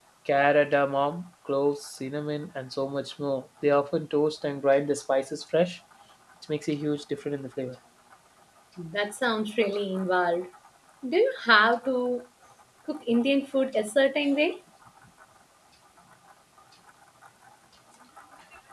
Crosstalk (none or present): none